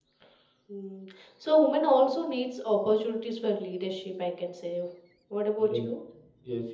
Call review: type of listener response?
taking over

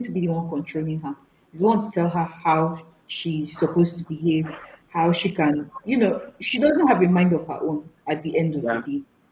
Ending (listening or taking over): listening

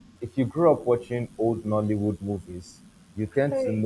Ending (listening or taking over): listening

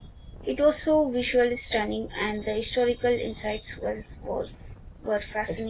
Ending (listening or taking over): taking over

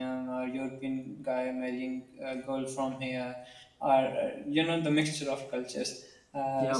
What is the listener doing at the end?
taking over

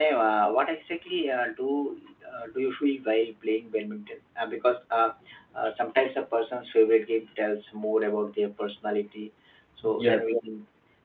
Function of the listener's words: listening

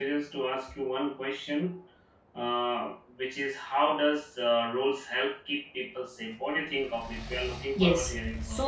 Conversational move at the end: taking over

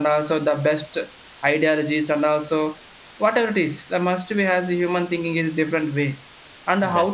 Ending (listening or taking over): listening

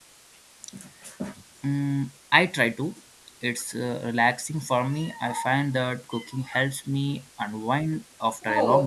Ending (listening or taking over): taking over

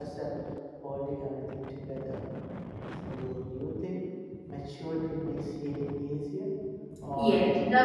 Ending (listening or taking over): taking over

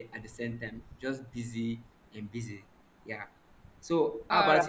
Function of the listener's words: listening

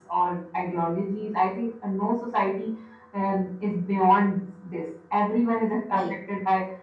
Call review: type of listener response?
listening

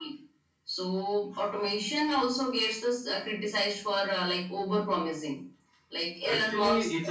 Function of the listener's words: taking over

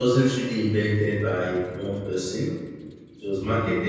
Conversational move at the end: listening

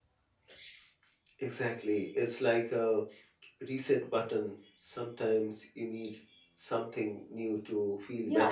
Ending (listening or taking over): taking over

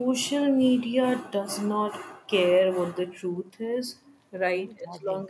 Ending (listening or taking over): listening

